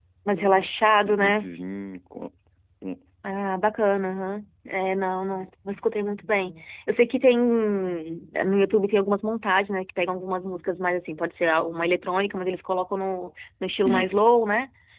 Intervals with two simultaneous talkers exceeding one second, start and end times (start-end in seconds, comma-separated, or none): none